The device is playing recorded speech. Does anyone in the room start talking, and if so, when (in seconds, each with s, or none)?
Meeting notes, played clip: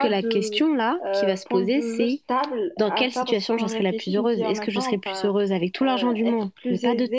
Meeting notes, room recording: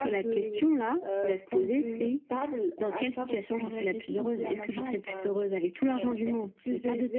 none